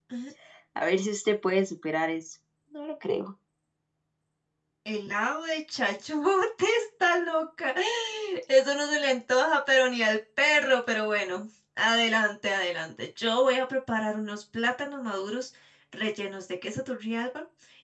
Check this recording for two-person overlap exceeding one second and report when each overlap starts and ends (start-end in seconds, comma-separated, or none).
none